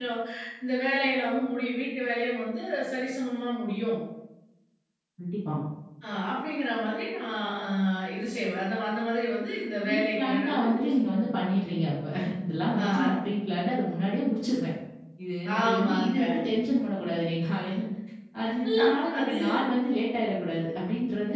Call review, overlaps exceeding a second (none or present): present